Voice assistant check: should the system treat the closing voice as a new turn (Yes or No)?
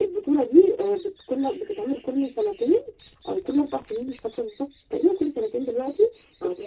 No